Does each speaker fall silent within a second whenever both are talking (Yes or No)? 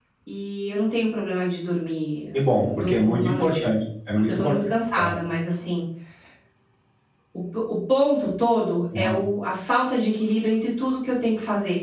No